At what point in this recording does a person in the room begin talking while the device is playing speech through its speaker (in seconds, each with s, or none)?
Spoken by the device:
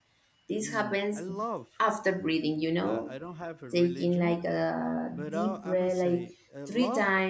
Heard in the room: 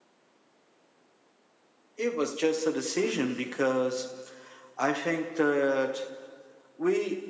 2.0 s